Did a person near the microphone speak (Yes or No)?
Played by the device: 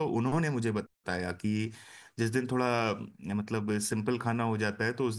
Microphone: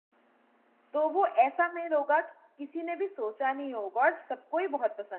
Yes